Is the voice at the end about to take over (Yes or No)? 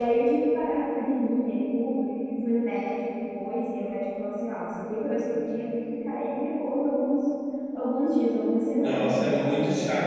Yes